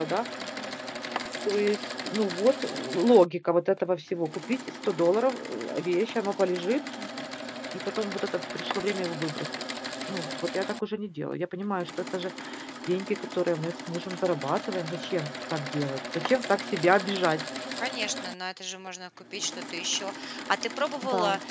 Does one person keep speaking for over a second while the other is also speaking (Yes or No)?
No